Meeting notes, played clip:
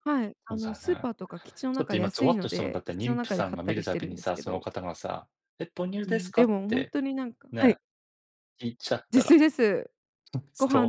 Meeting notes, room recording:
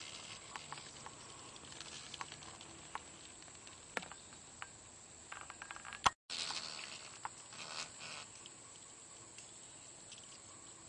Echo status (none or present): none